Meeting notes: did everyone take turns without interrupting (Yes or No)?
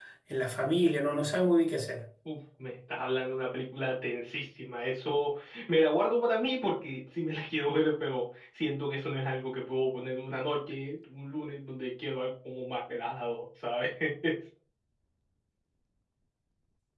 Yes